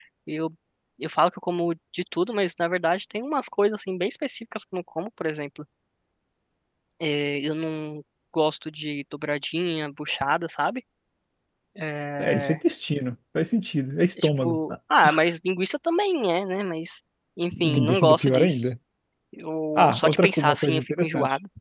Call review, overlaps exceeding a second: present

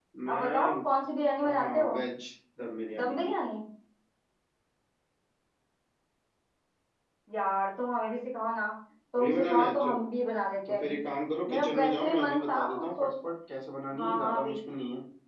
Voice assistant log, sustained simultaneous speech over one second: present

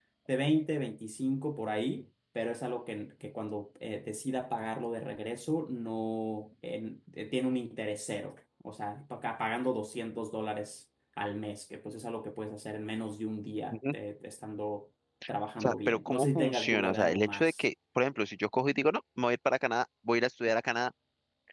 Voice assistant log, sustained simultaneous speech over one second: present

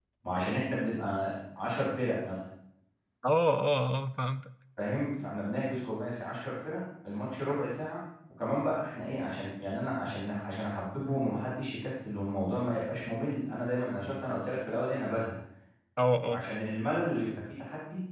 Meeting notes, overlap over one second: none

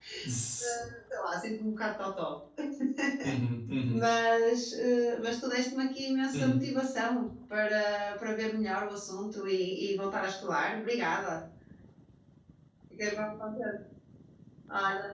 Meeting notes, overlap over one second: none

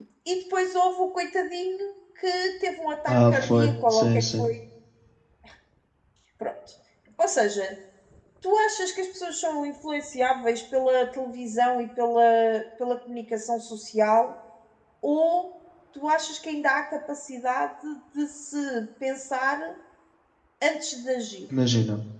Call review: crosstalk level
present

